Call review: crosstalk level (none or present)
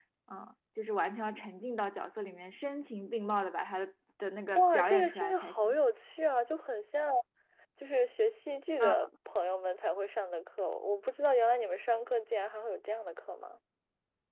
present